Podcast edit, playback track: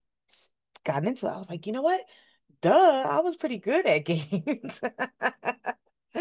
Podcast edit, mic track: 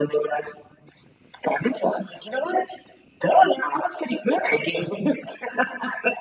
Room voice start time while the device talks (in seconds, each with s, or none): none